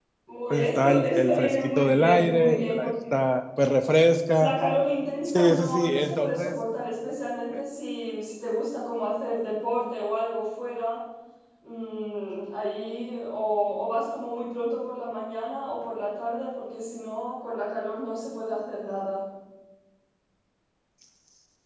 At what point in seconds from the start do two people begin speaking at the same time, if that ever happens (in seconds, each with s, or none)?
0.5 s